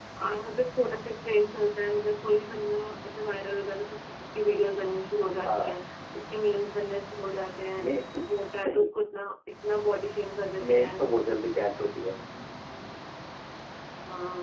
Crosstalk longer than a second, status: none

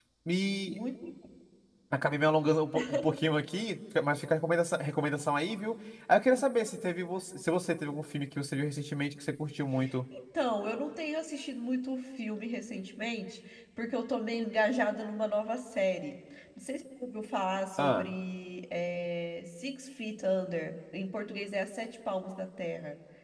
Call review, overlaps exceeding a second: none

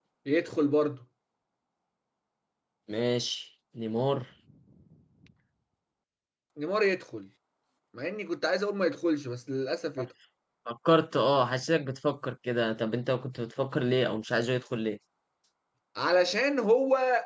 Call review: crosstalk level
none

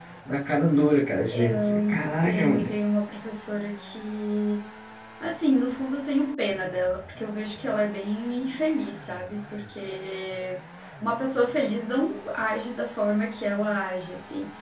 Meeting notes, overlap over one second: present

